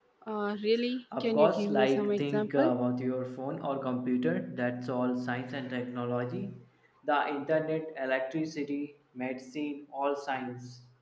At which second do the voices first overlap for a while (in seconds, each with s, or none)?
1.2 s